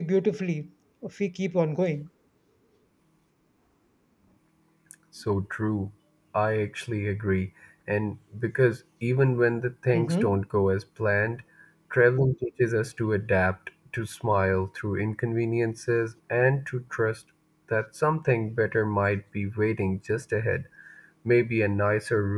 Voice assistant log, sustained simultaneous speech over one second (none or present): none